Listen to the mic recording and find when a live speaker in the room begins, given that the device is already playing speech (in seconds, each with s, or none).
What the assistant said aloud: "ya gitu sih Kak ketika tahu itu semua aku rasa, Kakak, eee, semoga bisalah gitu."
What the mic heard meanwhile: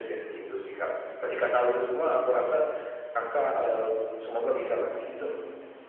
5.0 s